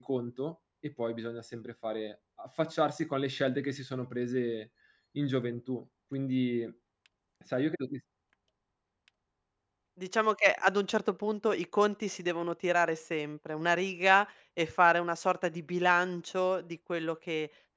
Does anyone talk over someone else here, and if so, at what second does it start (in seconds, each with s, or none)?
none